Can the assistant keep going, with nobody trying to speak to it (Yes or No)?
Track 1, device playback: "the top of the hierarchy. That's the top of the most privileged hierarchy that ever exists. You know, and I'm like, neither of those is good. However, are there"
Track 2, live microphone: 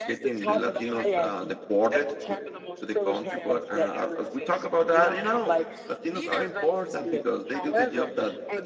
No